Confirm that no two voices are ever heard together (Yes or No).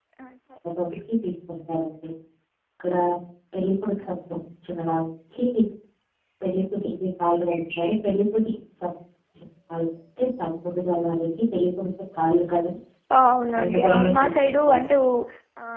No